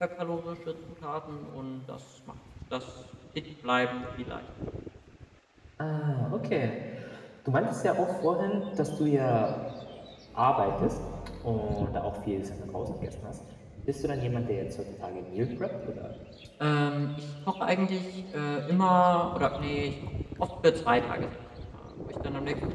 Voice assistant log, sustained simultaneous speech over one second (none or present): none